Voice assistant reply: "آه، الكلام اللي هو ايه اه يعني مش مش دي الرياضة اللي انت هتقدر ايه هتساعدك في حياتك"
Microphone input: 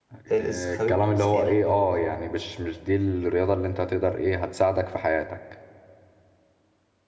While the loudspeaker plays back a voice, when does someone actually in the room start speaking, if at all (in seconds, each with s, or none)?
0.3 s